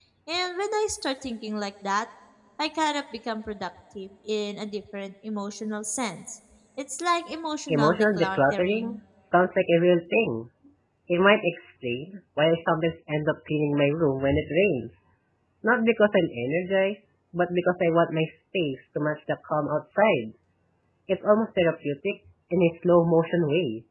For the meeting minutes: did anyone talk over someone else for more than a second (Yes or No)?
Yes